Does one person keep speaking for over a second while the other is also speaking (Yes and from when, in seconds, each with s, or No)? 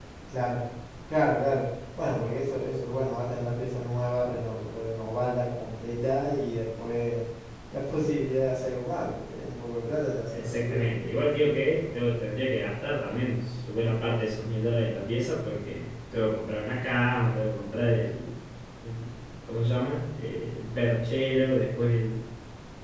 No